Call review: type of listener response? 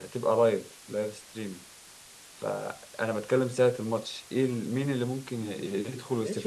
taking over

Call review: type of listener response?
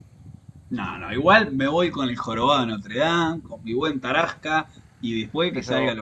listening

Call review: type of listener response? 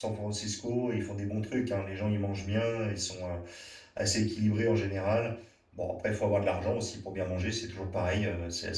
listening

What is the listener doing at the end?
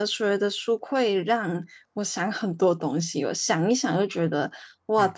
listening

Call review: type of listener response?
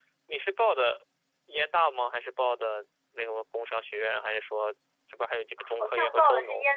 taking over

